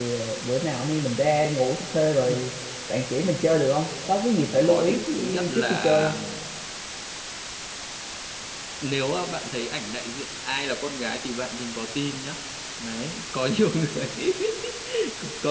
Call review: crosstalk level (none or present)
present